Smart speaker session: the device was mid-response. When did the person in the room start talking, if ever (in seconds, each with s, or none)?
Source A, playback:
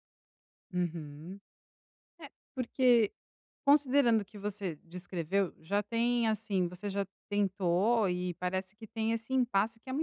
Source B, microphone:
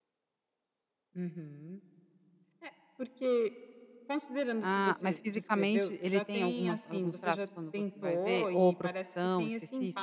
4.6 s